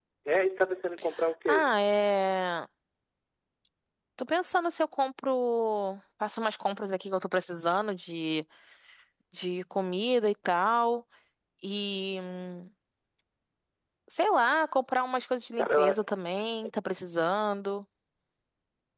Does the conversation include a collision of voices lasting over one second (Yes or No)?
No